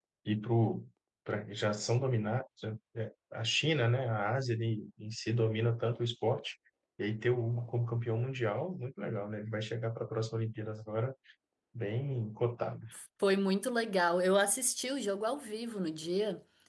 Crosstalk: none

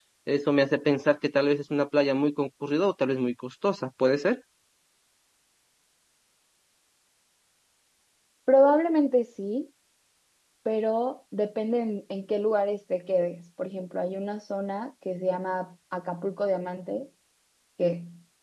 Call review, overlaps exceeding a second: none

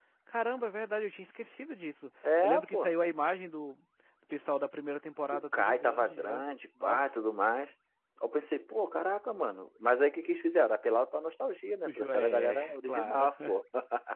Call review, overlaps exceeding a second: present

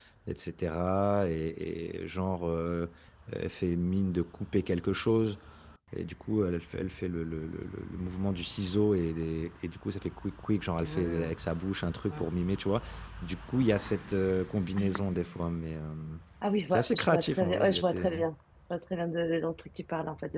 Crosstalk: present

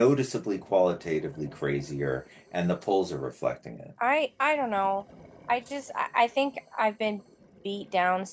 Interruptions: none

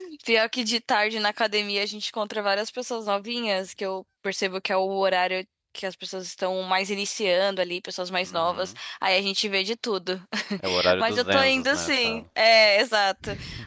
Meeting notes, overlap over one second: present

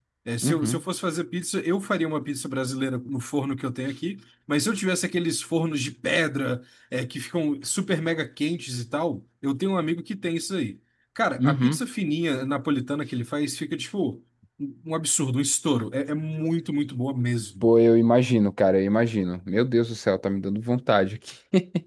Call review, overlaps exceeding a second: none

